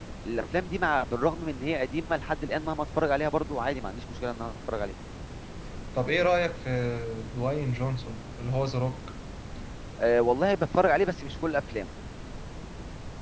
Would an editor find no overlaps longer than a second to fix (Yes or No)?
Yes